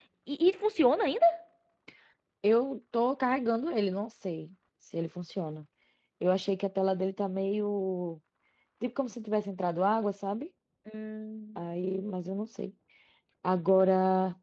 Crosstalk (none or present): none